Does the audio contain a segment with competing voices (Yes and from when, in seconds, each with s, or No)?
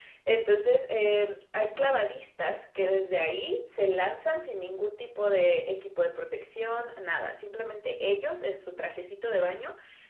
No